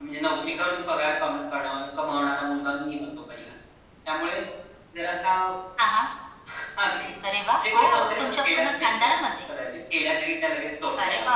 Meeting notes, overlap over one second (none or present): present